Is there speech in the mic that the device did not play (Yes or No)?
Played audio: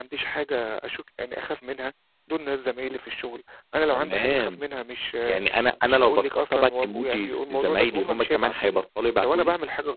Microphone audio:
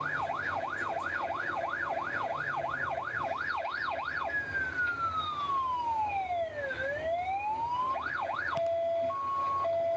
No